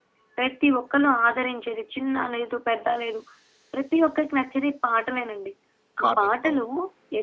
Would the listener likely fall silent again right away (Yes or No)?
Yes